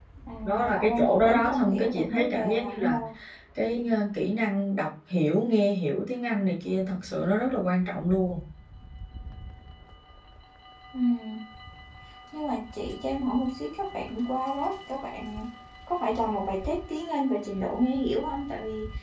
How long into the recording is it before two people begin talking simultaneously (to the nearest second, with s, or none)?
1 s